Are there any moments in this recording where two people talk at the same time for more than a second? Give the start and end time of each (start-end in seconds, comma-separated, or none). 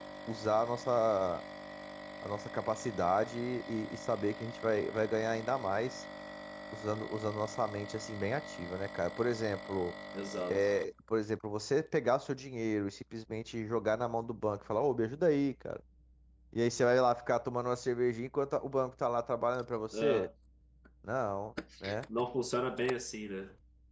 none